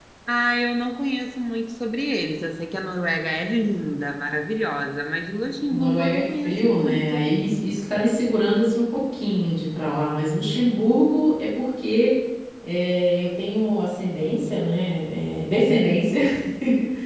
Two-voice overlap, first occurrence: 5.7 s

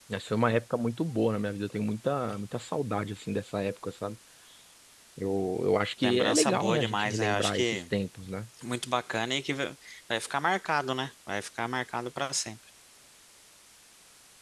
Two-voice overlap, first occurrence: 6.0 s

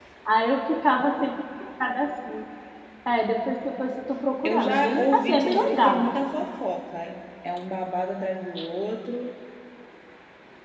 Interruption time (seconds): 4.4 s

